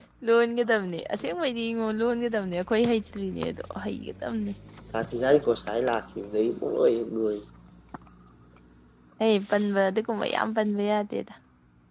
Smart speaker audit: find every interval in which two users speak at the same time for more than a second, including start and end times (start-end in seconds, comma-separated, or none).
none